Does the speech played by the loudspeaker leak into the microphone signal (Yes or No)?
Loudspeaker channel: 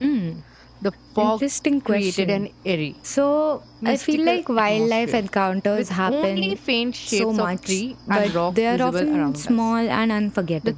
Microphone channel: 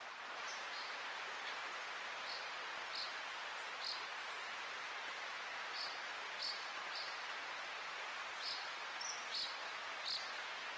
No